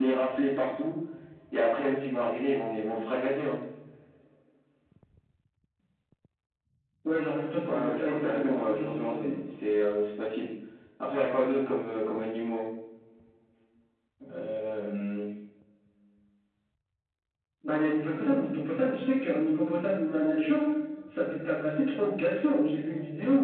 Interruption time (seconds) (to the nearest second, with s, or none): 8 s